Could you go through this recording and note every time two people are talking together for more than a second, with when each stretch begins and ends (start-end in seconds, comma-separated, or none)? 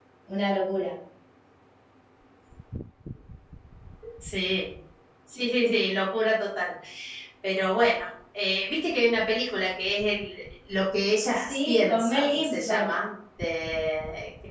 11.5-12.9